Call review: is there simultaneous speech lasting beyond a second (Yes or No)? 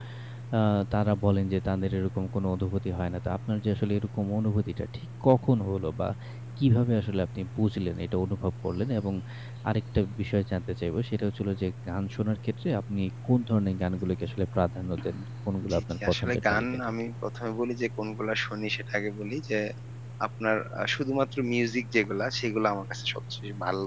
Yes